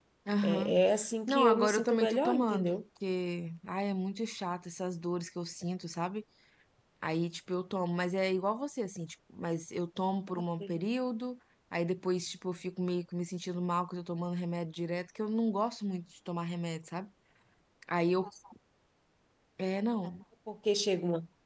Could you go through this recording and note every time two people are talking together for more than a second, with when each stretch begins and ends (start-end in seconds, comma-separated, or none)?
1.3-2.8